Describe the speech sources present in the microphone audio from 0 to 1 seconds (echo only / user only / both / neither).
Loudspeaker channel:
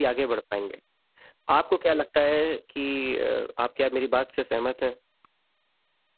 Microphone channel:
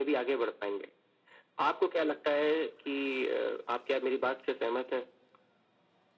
echo only